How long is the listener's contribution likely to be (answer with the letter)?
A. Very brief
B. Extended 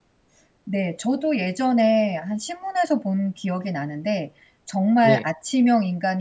A